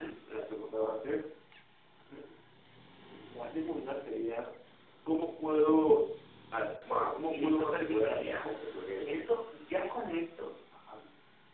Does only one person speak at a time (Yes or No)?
No